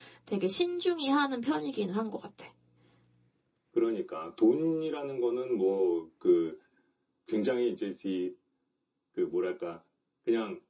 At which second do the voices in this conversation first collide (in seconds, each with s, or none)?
none